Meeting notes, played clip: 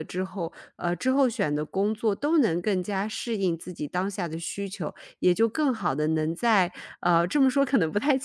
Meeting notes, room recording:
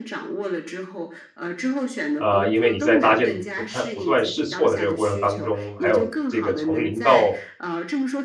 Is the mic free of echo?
No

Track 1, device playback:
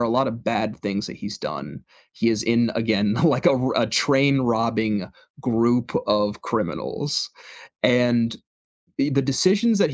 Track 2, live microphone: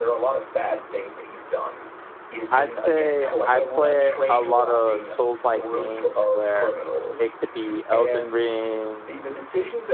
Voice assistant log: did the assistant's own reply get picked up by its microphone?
Yes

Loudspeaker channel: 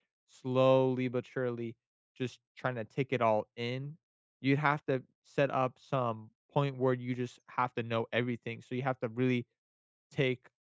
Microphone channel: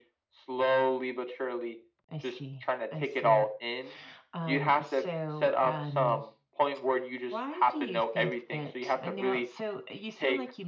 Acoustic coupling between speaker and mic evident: Yes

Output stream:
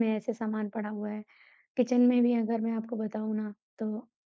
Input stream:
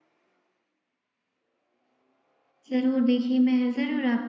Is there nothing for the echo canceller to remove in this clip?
Yes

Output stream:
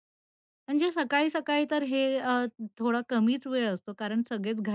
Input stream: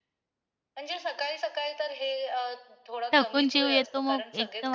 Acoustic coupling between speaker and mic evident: Yes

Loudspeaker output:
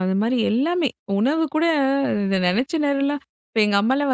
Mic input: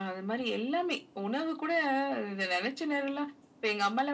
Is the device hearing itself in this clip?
Yes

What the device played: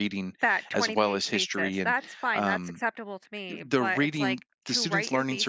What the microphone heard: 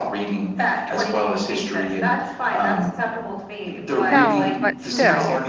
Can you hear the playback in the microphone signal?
Yes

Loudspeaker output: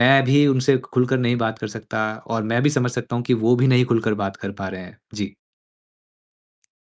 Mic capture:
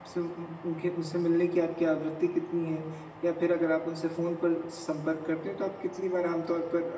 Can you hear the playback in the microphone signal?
No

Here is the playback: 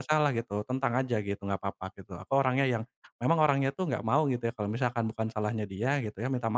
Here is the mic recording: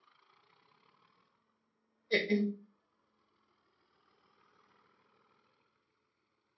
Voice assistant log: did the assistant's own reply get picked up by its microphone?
No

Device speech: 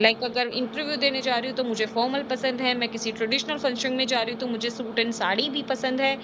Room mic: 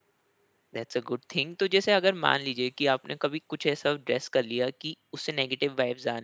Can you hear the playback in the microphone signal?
No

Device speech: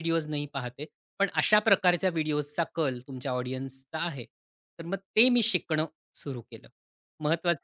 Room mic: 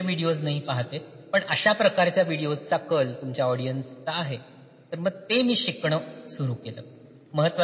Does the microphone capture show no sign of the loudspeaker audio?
No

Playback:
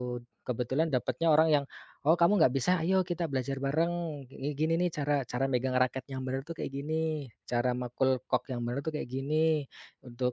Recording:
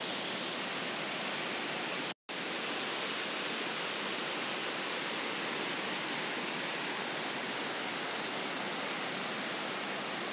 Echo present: No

